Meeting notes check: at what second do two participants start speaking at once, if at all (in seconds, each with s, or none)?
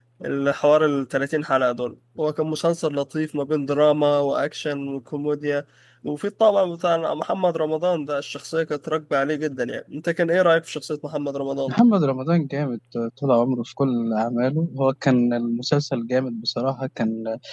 none